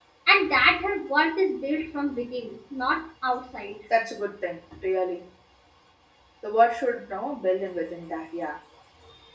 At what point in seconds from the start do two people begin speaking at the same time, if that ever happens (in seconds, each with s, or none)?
none